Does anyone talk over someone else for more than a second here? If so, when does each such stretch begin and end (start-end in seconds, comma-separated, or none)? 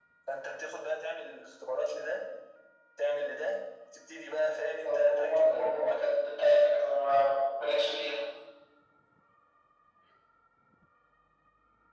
4.8-6.1